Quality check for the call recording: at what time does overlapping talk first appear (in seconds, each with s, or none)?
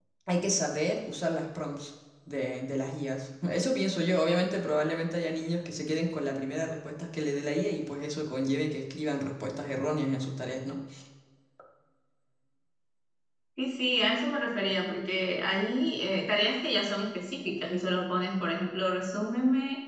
none